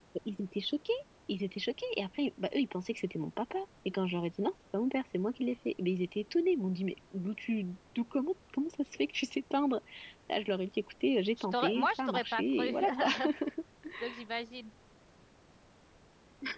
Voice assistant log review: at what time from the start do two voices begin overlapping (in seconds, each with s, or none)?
11.4 s